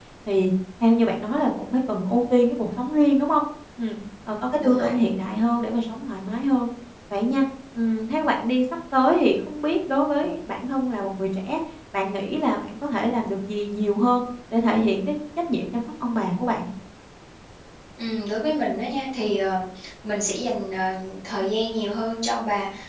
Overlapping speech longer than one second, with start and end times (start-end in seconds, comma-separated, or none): none